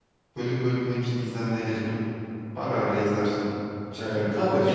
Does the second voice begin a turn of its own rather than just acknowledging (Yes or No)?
Yes